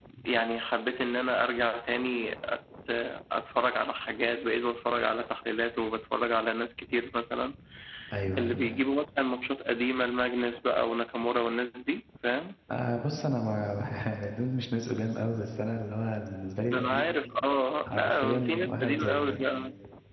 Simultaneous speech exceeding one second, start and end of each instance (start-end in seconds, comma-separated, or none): 17.9-19.4